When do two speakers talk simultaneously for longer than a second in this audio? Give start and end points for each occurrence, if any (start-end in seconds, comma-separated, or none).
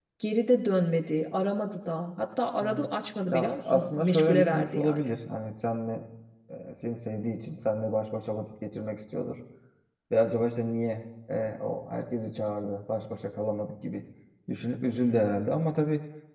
3.3-5.0